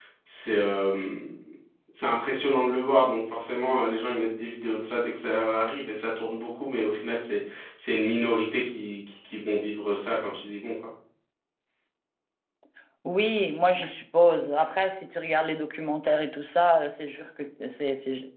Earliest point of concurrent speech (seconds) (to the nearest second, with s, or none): none